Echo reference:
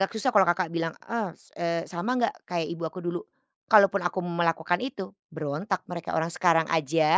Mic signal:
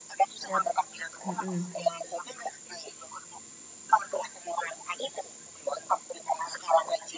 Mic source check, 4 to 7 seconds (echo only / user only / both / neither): echo only